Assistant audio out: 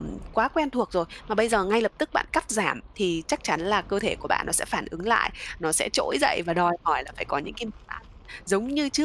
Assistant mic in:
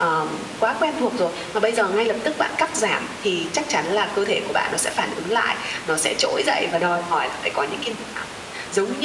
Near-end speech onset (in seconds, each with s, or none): none